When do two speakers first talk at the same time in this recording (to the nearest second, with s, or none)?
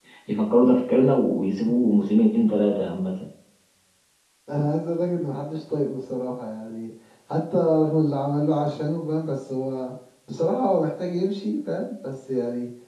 none